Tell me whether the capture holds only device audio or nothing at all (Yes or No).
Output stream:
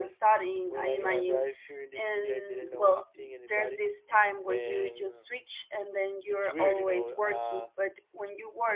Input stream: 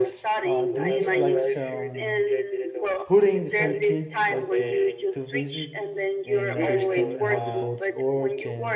No